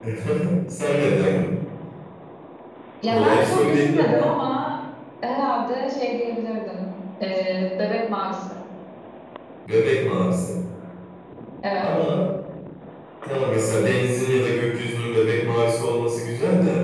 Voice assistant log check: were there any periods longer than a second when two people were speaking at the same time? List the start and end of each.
3.1-4.3

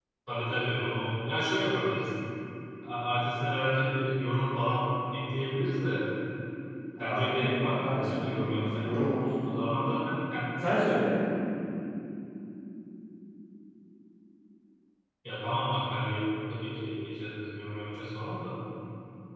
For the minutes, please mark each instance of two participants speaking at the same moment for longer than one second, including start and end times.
7.0-9.0

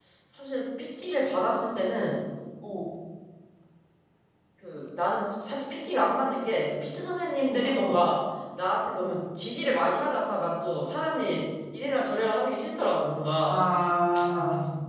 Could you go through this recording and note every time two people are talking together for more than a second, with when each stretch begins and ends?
none

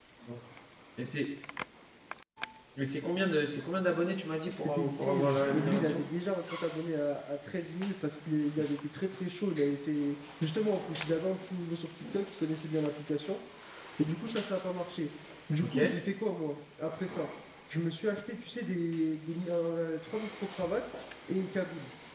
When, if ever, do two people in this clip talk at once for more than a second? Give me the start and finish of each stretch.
4.6-6.0

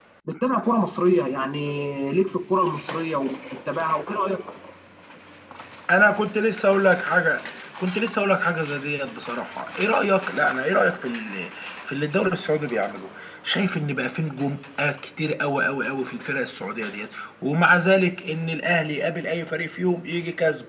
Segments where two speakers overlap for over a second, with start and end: none

